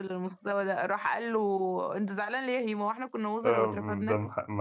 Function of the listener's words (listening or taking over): taking over